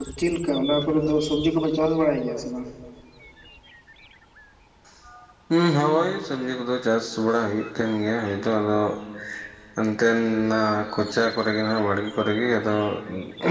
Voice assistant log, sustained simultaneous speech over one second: none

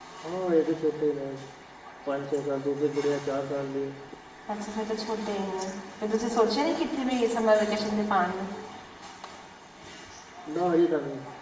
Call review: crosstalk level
none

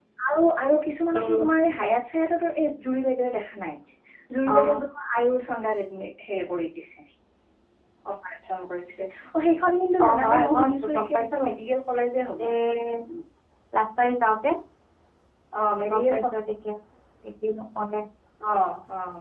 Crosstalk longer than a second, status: present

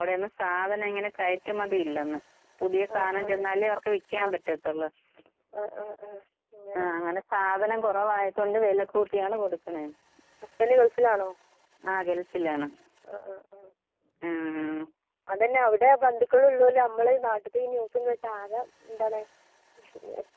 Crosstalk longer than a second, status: none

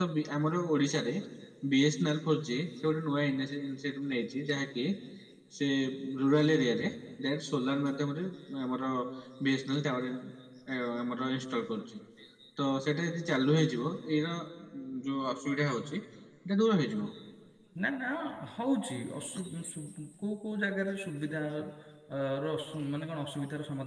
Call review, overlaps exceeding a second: none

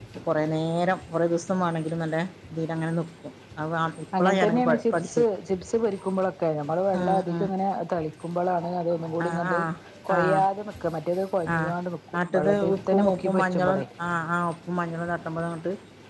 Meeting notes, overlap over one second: present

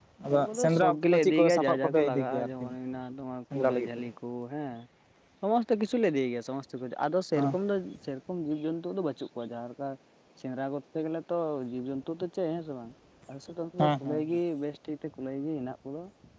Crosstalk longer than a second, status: present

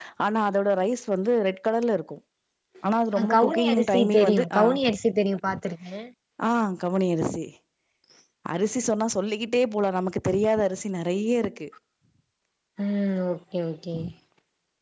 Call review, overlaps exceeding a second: present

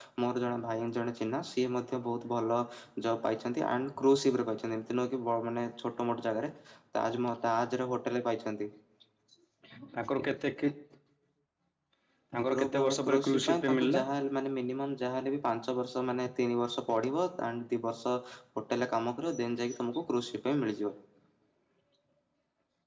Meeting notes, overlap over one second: present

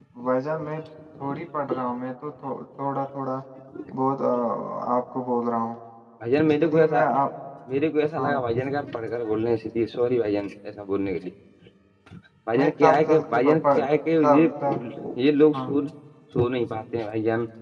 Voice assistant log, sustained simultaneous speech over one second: present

